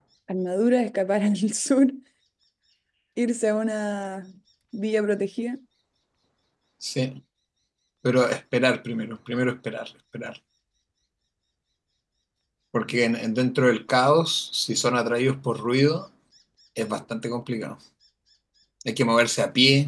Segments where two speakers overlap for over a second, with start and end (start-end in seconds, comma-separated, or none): none